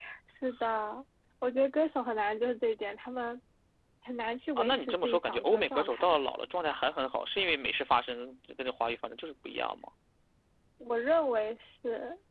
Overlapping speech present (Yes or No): Yes